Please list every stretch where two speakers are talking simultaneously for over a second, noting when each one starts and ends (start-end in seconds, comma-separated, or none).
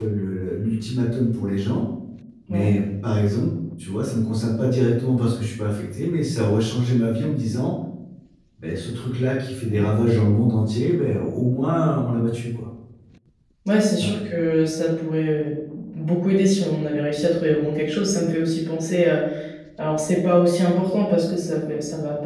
none